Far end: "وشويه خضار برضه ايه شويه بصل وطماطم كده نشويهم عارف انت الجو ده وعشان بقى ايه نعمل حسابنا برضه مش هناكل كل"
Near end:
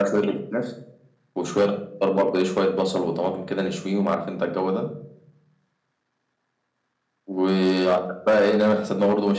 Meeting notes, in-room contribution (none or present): none